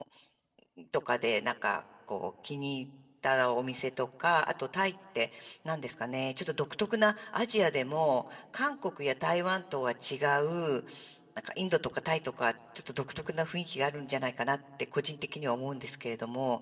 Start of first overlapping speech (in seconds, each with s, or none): none